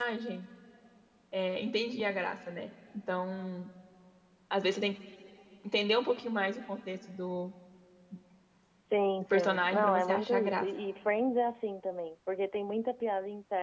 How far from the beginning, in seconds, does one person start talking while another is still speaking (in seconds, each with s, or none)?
9.3 s